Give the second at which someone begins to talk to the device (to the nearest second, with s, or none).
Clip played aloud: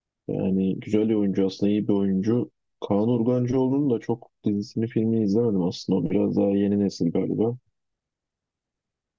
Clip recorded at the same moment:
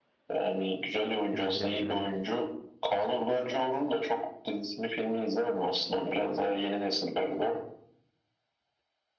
1 s